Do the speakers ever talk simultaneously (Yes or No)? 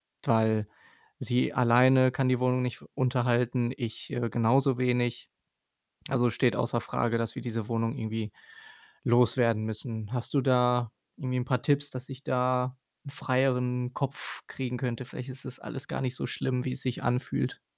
No